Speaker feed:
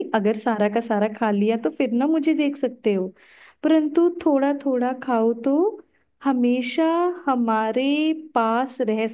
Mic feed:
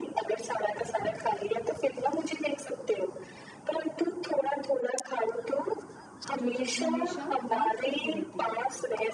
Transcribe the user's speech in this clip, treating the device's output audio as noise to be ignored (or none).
जो चीज हमेशा डांस करती रहती है